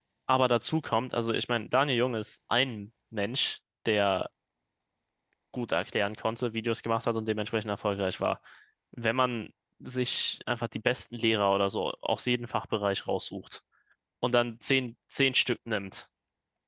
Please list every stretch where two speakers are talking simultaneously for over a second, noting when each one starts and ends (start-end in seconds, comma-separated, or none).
none